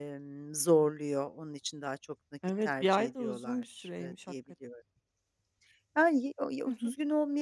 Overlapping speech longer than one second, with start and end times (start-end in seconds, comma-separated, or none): 2.6-4.3